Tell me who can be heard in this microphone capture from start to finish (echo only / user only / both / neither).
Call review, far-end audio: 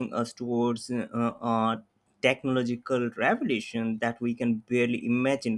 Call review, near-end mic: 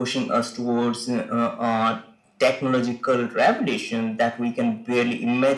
echo only